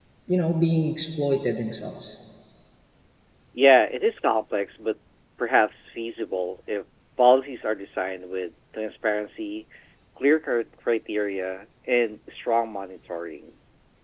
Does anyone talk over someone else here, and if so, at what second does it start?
none

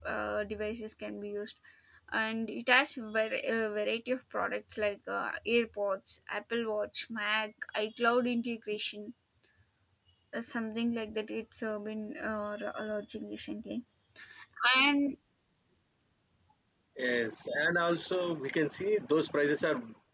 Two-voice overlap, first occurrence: none

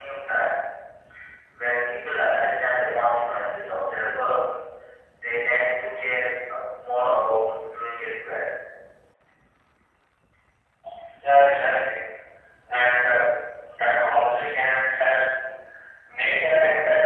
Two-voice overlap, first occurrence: none

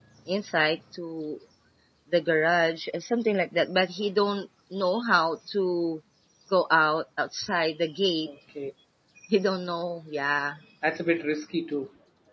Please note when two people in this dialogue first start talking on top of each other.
none

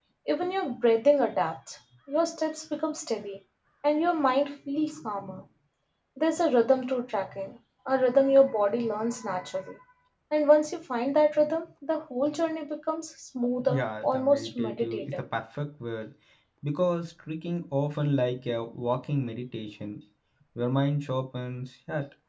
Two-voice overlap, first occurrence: 13.6 s

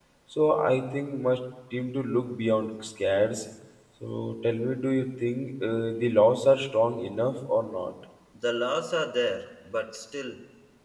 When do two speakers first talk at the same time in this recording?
none

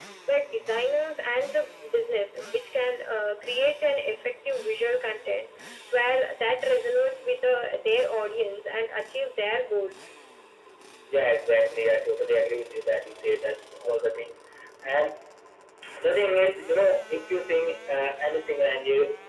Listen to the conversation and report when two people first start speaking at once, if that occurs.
none

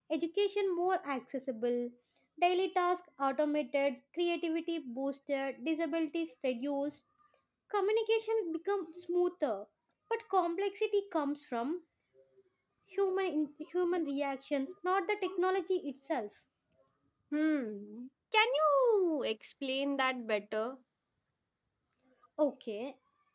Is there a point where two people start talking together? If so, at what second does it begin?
none

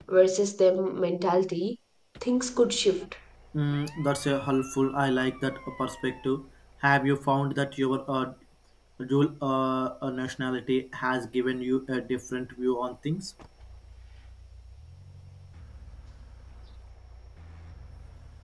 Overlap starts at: none

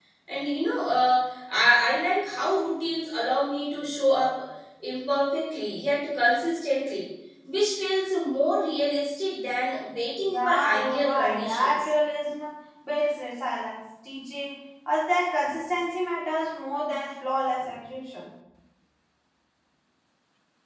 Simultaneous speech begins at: 10.3 s

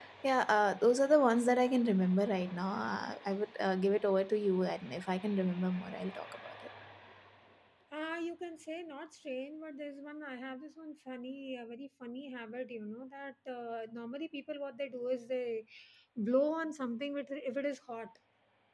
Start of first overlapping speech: none

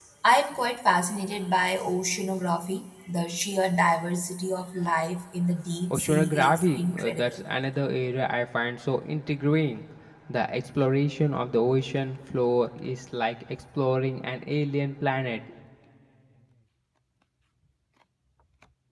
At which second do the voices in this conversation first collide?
5.9 s

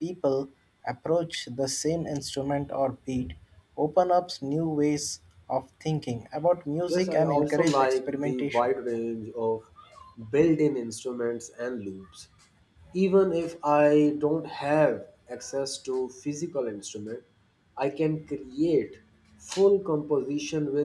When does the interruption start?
6.9 s

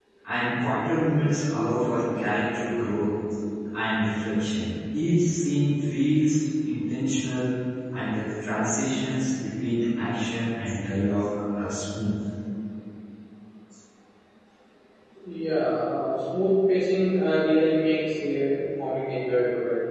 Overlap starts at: none

